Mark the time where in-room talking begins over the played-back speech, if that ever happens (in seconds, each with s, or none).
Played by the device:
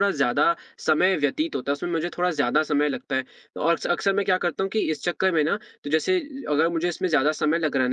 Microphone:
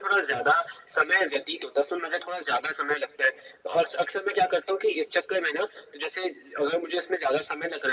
none